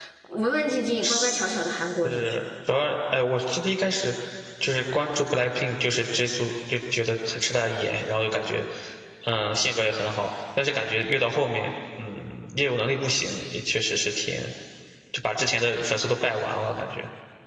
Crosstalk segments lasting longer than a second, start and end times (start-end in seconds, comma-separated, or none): none